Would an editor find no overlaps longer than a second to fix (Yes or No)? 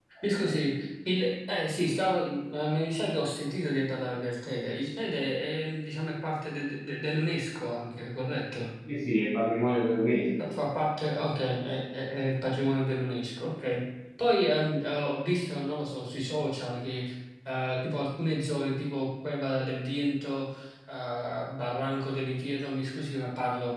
Yes